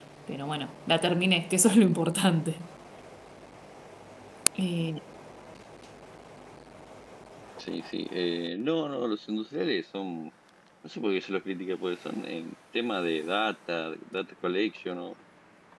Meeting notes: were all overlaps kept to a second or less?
Yes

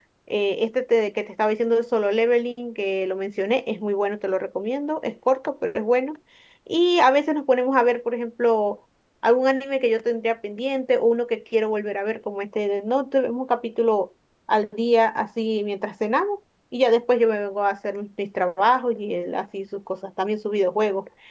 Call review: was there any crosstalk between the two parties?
No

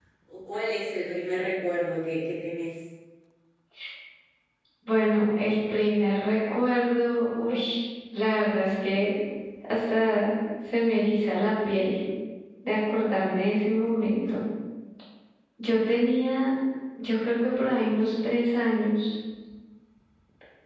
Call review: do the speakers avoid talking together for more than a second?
Yes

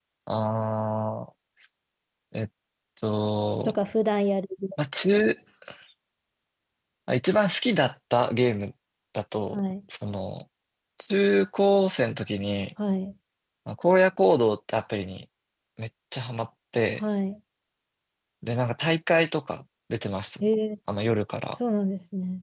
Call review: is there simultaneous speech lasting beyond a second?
No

